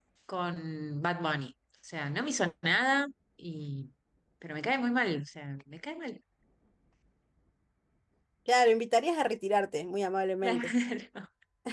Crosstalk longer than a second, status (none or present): none